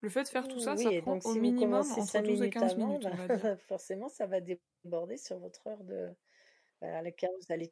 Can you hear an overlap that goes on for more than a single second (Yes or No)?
Yes